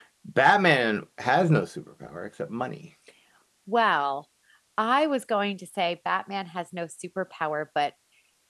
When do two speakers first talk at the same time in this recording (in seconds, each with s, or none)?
none